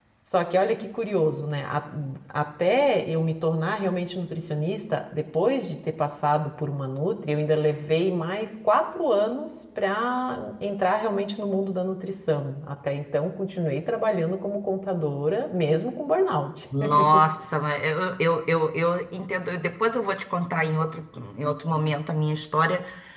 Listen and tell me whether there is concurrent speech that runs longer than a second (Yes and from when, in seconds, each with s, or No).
No